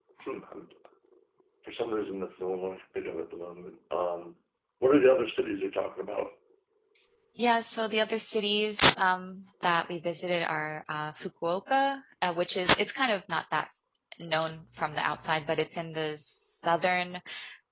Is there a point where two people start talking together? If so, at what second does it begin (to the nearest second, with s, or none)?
none